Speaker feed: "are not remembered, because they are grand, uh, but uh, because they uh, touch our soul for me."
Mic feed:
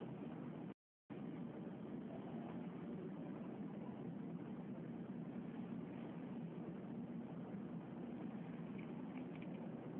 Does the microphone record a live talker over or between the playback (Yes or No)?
No